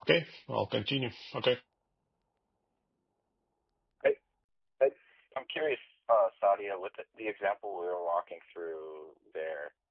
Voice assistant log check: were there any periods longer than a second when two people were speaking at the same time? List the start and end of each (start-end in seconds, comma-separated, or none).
none